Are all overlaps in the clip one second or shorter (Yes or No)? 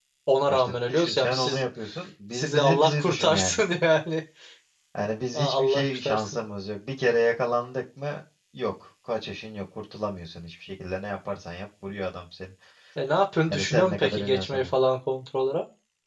No